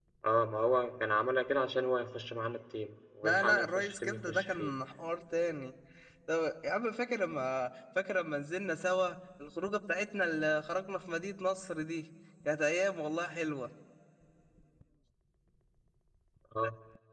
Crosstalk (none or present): present